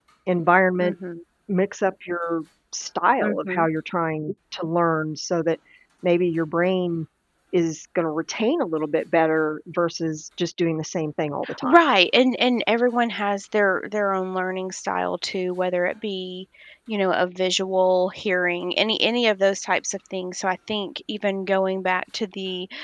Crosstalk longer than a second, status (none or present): none